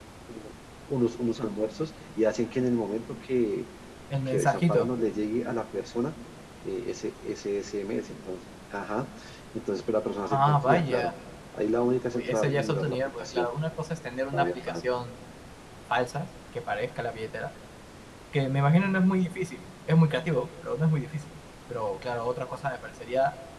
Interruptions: present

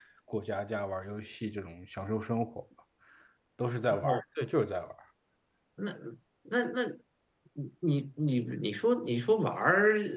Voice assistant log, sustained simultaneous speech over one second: none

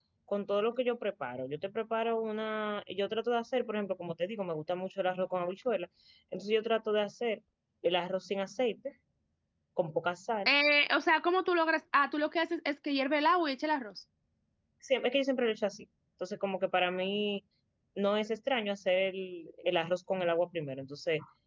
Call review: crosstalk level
none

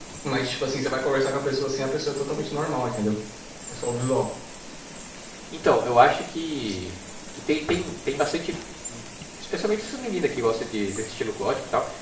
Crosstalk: none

